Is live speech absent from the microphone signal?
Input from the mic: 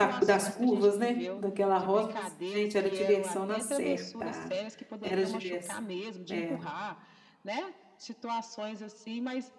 No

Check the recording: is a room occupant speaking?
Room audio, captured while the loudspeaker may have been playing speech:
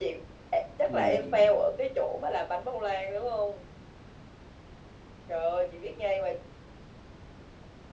Yes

